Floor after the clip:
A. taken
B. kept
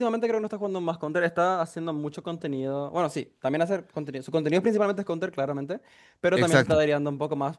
B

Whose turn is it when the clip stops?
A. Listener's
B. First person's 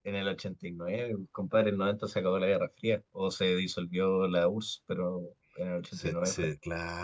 A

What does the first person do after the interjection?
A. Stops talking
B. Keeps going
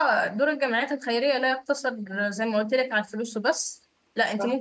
B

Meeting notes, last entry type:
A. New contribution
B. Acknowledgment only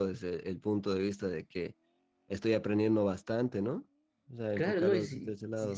A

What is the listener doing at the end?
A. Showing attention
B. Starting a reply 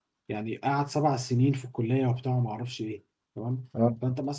A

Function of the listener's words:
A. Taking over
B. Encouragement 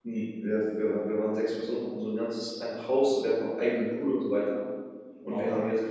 B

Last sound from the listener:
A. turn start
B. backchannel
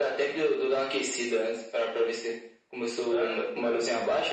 B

